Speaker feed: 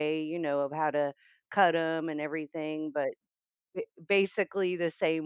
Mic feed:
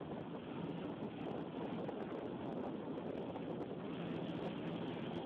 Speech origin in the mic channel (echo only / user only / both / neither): neither